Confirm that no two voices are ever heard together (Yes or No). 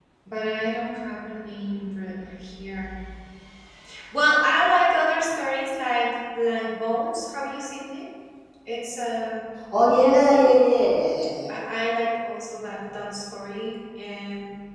Yes